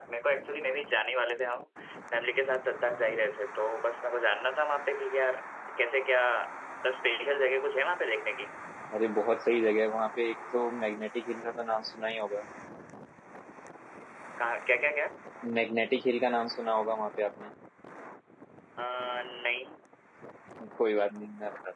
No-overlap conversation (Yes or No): Yes